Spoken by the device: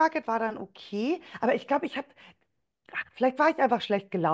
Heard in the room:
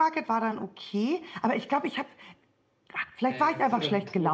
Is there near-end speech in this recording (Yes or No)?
Yes